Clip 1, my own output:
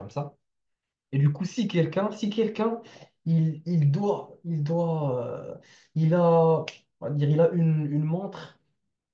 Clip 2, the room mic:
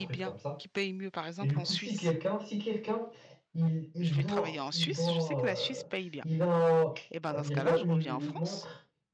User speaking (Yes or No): Yes